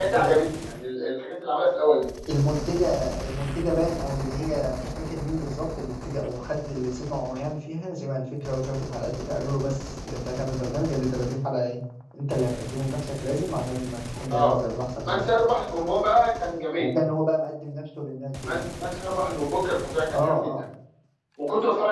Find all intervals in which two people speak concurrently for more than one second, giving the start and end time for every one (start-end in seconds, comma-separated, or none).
none